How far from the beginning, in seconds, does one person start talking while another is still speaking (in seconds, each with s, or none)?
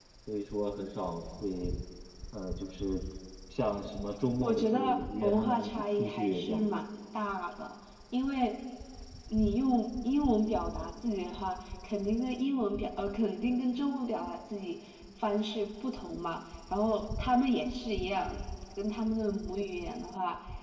4.4 s